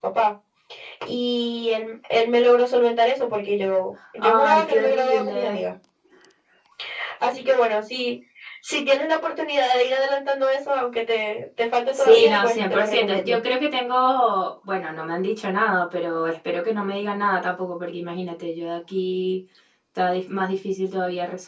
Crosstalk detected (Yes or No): Yes